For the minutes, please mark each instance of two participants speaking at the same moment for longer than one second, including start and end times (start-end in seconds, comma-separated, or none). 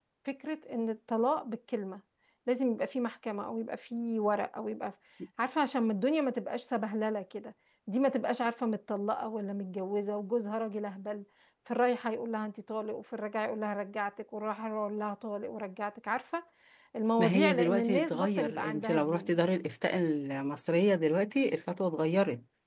17.2-19.4